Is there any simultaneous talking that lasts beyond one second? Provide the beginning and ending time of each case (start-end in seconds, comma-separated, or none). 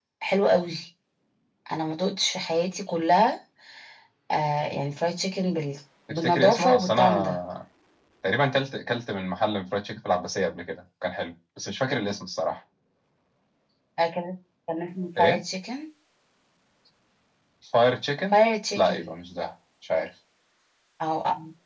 6.1-7.4